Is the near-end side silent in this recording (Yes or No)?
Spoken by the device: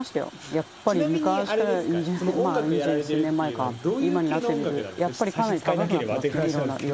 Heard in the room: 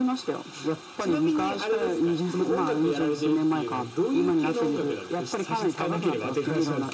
Yes